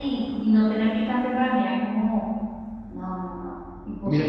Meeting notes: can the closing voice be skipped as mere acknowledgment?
No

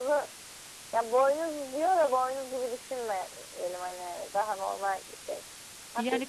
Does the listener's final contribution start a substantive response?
Yes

